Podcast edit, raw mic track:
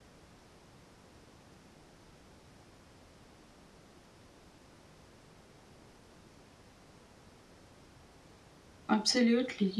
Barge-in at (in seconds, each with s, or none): 8.9 s